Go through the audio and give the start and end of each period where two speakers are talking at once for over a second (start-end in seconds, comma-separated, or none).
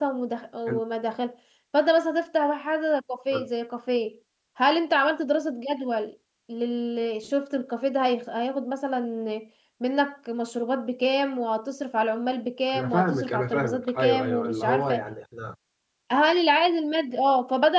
12.8-15.0